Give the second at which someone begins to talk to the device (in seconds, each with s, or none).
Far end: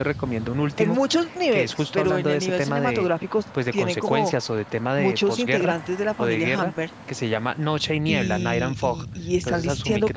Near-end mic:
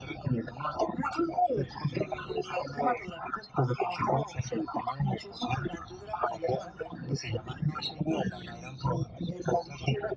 none